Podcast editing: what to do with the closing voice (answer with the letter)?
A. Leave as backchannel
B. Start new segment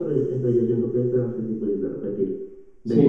B